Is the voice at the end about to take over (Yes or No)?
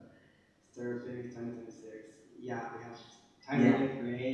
No